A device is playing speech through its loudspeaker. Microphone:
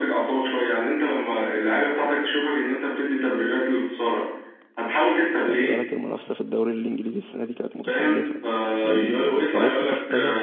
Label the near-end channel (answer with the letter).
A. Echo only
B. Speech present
B